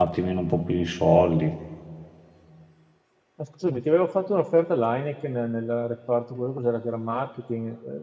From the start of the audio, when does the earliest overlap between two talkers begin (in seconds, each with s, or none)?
none